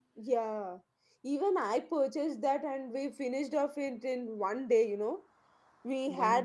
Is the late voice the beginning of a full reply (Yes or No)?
No